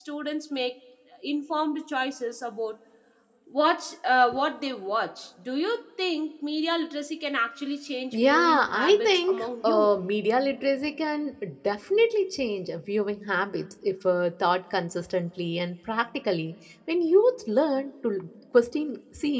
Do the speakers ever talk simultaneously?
Yes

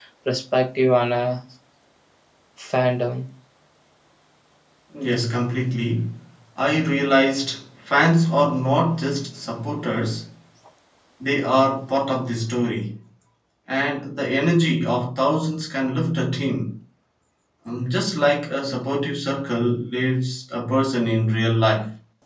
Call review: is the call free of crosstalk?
Yes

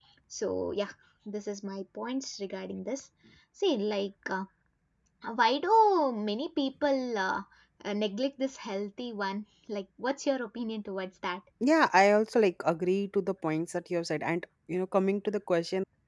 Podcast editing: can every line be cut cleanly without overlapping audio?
Yes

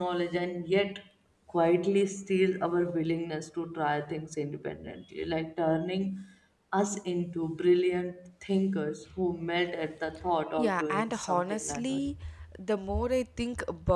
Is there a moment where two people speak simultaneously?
Yes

